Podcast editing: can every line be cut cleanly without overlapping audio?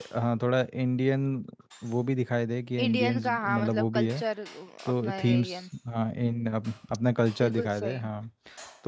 No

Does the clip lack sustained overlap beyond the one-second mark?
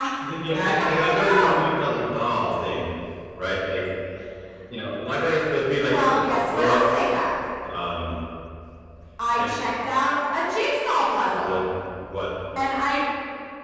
No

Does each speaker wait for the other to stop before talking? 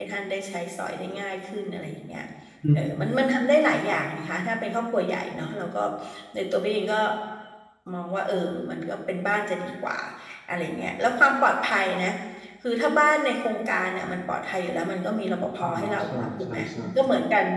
No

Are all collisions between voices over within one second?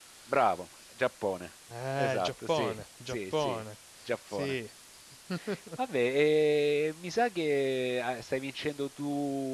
No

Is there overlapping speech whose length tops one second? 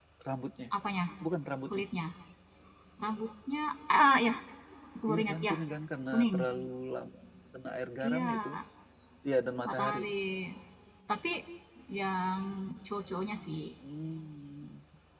No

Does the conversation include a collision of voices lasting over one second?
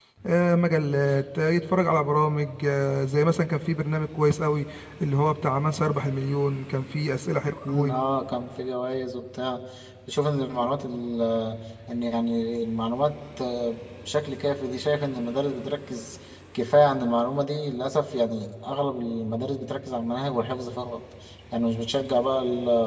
No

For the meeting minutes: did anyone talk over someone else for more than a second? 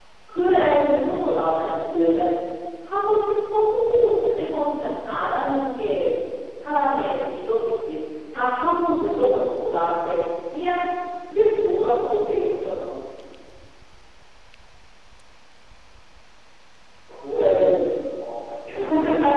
No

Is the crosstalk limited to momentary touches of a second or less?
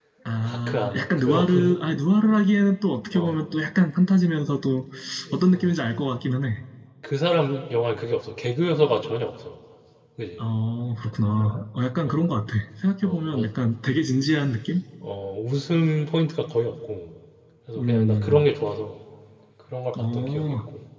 No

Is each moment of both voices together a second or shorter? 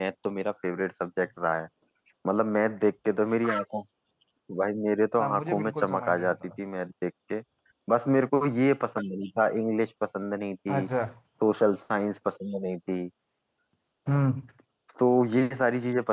No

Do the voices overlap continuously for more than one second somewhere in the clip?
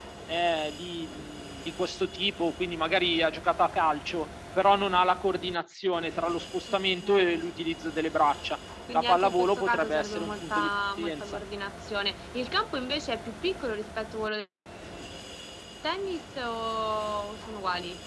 Yes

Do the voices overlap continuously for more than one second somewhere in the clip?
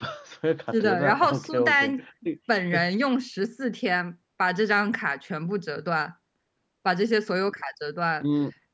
Yes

